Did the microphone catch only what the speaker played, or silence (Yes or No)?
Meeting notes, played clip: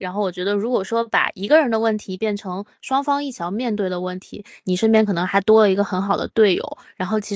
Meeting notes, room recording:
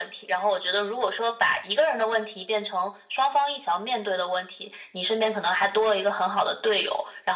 Yes